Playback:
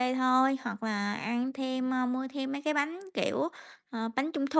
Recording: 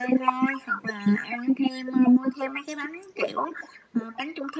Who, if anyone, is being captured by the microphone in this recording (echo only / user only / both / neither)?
echo only